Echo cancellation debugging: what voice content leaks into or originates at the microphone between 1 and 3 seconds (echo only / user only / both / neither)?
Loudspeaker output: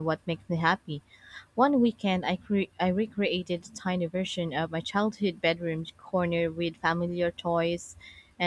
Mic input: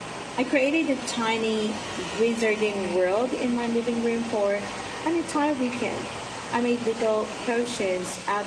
user only